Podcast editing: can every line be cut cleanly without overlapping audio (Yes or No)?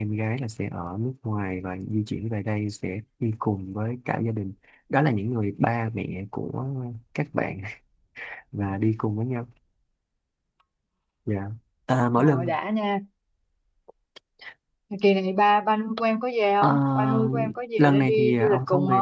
No